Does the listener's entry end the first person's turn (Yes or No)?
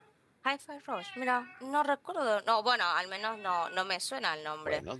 Yes